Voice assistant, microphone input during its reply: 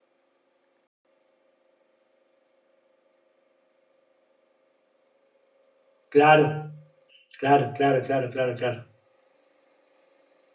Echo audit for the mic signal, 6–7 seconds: user only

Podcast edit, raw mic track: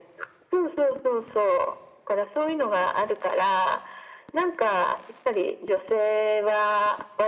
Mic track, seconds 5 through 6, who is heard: echo only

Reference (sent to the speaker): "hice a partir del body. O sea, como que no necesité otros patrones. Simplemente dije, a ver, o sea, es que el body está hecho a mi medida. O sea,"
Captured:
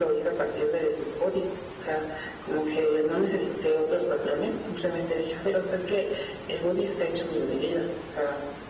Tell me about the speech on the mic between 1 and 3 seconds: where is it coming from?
echo only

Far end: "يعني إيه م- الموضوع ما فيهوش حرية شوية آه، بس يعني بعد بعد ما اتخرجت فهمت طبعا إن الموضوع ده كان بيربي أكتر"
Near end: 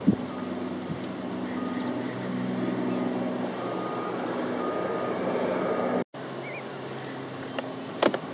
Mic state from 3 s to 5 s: neither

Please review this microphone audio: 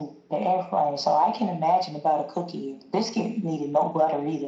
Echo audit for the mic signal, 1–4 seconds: echo only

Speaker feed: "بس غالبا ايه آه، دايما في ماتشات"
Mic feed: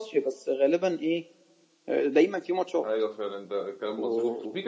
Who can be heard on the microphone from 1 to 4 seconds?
both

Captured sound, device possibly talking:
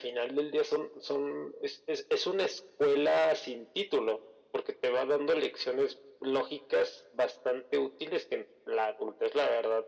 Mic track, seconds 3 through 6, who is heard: echo only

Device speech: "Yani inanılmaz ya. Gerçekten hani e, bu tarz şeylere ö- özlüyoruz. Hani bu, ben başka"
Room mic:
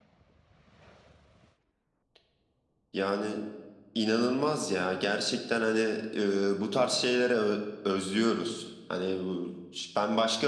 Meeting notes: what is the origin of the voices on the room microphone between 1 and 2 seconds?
neither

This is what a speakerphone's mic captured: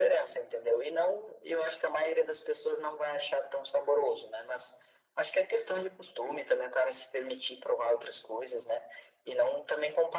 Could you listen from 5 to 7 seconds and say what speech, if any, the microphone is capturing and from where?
echo only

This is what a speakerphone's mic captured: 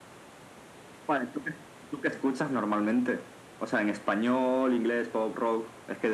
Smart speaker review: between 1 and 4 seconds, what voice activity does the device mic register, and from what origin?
echo only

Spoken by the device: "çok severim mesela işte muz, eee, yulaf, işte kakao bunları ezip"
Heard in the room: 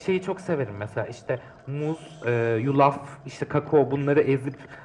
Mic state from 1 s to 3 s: echo only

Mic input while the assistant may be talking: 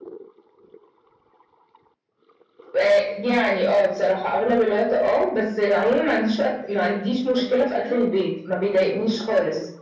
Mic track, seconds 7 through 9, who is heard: both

